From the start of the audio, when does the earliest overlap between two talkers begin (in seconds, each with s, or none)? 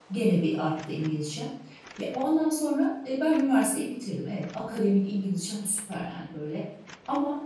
none